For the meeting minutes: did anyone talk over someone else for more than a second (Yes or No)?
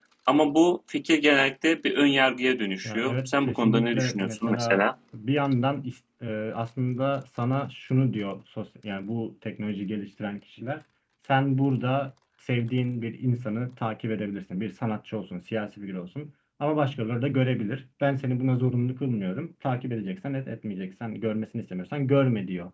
Yes